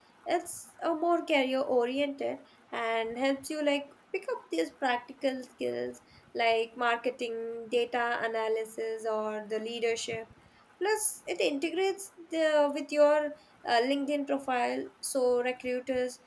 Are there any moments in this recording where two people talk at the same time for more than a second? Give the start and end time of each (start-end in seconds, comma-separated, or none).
none